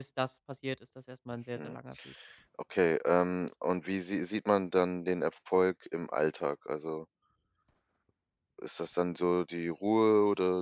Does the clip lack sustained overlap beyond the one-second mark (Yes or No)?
Yes